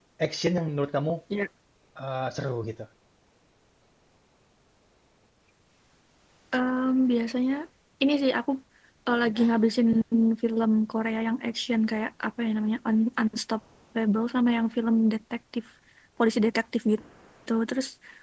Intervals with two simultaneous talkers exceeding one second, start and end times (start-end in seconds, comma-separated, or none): none